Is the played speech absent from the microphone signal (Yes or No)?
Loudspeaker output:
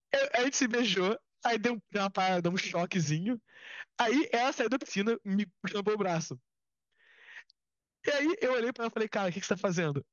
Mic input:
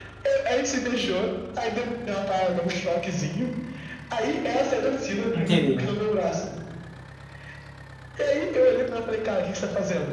No